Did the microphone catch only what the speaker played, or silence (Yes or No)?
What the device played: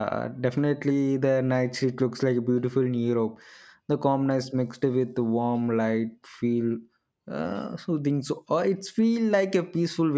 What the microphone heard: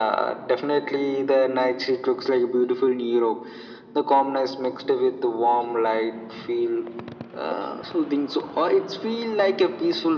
Yes